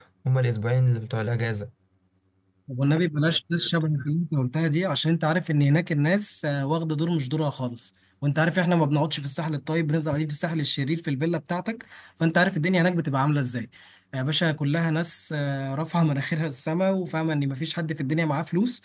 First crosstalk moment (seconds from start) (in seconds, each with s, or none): none